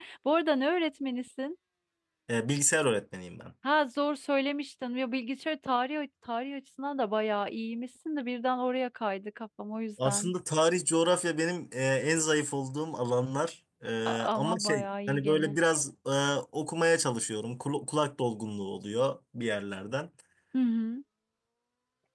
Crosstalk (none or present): present